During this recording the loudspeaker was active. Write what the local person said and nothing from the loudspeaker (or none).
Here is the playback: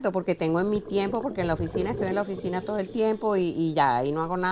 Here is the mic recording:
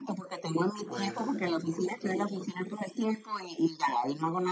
pues,